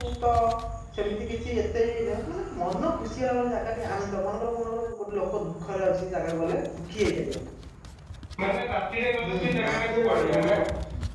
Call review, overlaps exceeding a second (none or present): present